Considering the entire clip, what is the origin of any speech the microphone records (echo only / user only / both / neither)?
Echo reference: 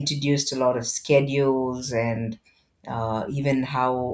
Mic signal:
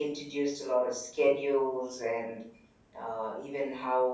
echo only